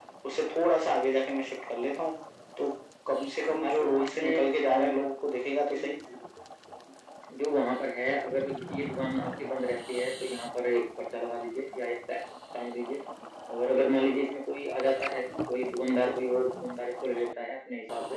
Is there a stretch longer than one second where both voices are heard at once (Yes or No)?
Yes